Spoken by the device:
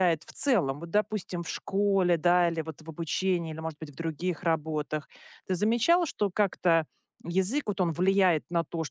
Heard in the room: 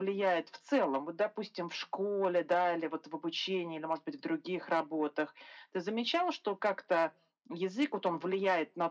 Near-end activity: none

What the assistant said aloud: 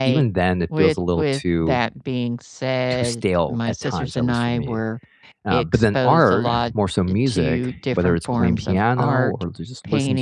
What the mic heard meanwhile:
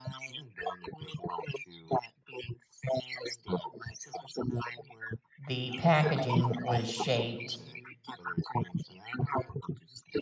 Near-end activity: present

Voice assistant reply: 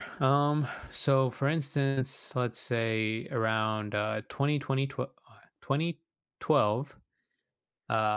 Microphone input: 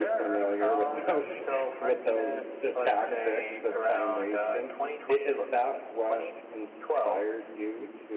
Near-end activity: present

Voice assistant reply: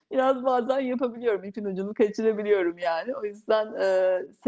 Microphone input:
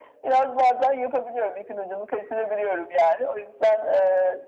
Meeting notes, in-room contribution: none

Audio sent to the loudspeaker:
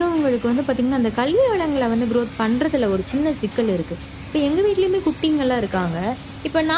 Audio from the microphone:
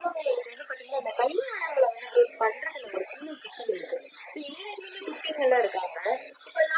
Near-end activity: none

